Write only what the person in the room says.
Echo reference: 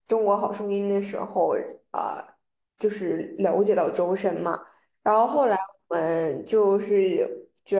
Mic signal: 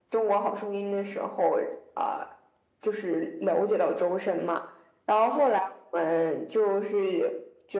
none

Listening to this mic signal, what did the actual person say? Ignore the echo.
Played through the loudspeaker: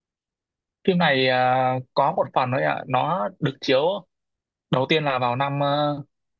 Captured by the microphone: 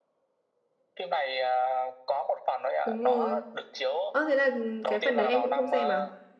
đúng rồi ờ thế là ừ, cái phần đấy em cũng không xem à

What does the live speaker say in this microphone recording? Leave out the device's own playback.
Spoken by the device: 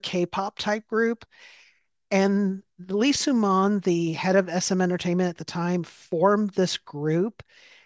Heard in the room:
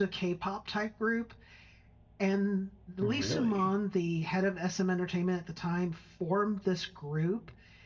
Really,

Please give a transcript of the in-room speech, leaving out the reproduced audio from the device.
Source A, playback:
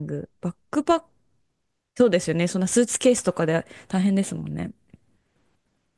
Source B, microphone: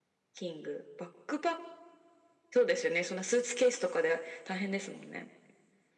none

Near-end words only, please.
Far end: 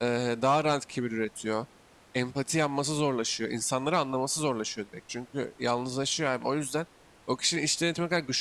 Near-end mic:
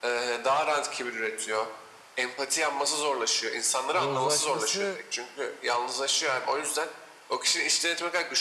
yozlaşması

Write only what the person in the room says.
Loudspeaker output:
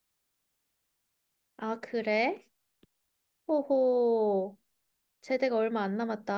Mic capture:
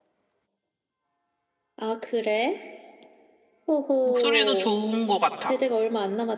목소리도 좋은 것 같아.

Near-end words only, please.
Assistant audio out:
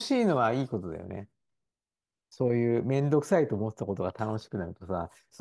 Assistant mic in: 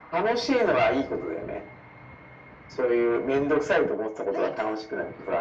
はい。

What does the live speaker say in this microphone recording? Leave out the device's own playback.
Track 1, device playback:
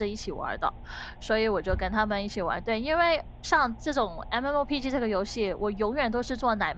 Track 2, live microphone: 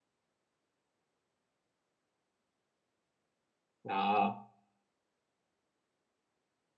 啊，

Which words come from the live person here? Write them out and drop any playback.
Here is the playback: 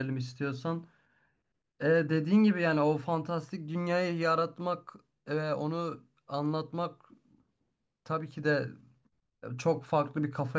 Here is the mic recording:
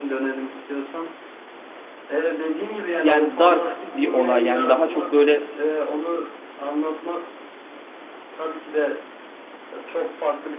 yani dark bir olay. Yani daha çok böyle

